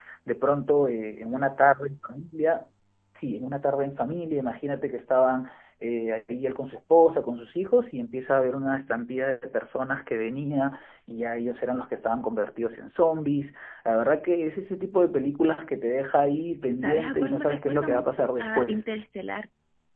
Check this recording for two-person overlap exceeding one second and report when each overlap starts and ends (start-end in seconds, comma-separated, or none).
16.8-18.8